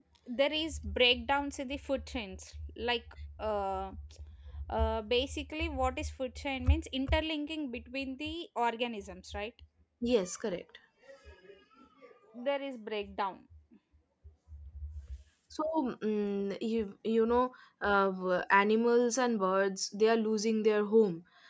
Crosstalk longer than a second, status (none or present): none